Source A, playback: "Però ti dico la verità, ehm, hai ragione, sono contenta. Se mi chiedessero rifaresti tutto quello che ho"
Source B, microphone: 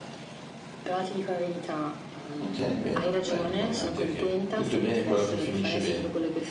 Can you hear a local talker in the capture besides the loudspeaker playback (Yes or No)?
Yes